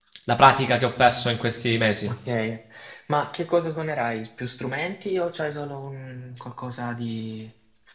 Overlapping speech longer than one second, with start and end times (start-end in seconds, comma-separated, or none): none